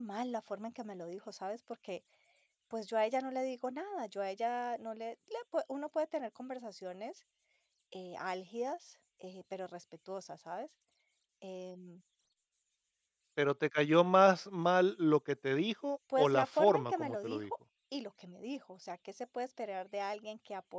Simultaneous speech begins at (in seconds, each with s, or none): 16.1 s